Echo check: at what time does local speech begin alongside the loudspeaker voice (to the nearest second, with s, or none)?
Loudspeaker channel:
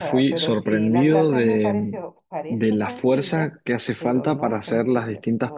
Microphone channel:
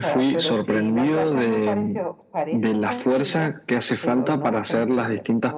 none